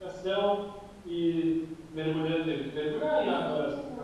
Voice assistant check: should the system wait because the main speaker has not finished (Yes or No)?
Yes